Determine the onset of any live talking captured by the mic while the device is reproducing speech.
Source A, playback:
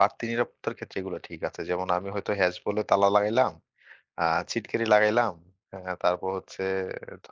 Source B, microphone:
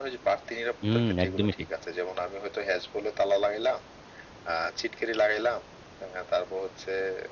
0.8 s

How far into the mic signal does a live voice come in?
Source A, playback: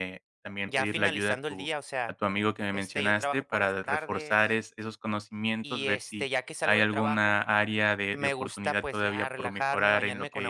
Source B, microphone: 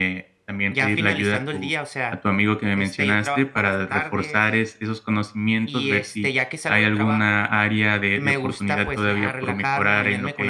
none

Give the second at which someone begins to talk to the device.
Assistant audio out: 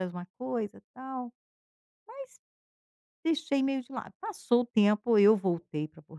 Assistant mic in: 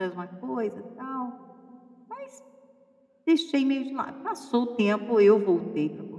none

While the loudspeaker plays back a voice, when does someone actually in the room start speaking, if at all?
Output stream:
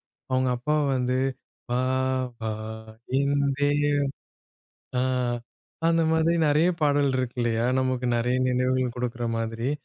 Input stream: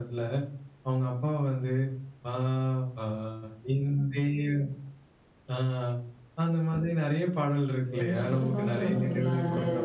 7.9 s

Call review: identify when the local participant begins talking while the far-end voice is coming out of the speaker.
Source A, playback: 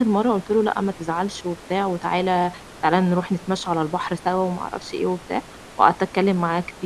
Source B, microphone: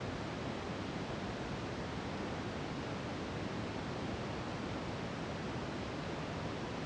none

